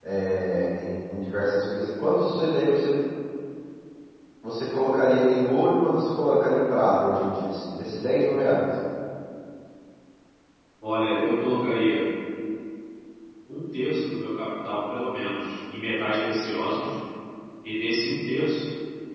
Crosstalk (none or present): none